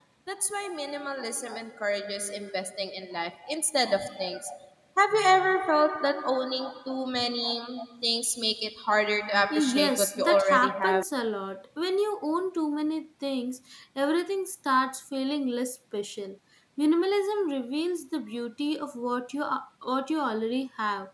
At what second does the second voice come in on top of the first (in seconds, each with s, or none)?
9.5 s